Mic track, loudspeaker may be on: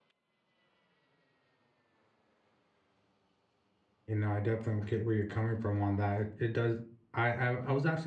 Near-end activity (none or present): present